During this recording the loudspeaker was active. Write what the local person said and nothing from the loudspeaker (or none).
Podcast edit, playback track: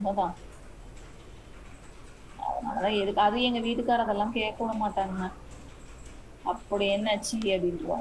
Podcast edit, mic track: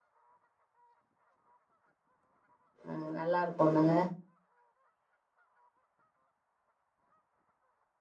ஆ நல்லாருக்குல்லங்க